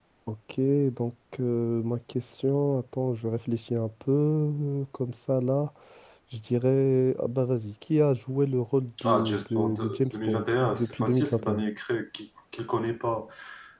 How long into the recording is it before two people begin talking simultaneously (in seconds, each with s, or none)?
9.0 s